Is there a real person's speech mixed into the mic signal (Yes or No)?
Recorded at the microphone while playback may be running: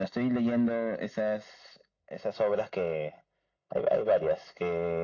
No